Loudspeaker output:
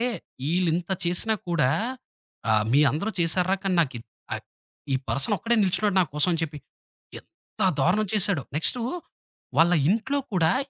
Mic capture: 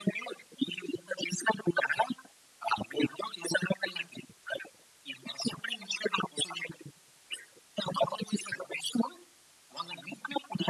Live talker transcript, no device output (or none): none